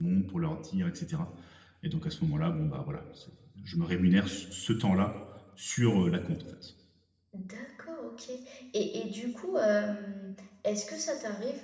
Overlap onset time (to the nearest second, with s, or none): none